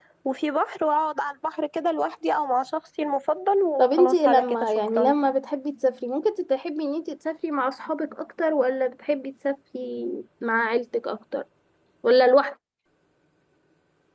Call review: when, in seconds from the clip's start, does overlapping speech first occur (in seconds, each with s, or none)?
3.8 s